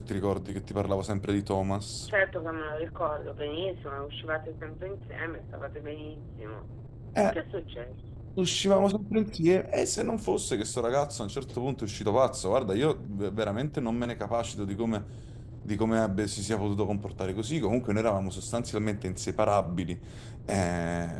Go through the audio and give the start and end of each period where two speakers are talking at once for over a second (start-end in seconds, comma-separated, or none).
none